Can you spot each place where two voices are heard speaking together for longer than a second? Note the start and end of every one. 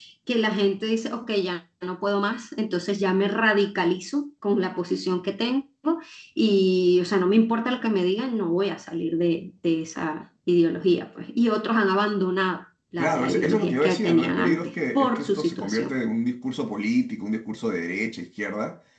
13.0-16.0

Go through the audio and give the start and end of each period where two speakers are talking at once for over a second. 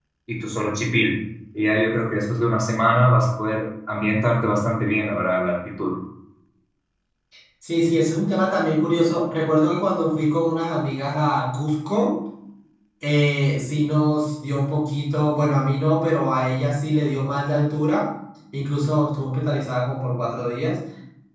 none

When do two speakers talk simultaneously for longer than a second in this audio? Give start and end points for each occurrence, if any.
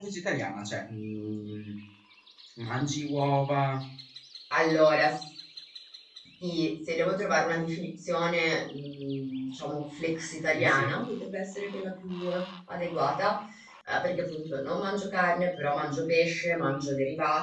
none

